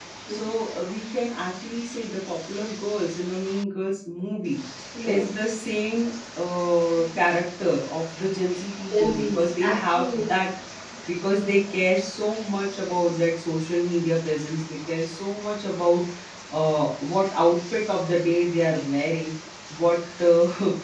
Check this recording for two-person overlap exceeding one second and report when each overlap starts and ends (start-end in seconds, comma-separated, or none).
8.9-10.3